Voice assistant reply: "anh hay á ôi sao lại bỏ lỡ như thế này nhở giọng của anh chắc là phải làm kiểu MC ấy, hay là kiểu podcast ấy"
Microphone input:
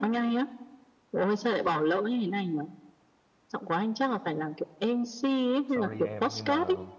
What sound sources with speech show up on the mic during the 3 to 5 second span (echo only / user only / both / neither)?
echo only